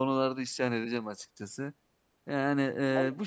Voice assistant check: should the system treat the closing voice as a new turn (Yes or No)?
No